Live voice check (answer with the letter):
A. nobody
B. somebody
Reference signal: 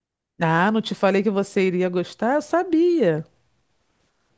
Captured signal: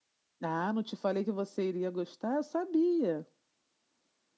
A